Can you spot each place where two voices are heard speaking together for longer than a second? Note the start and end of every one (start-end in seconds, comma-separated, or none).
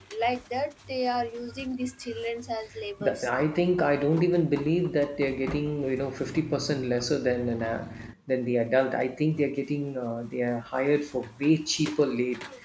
none